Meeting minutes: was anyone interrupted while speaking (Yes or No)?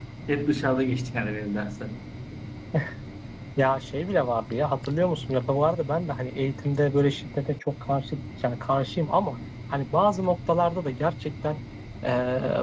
No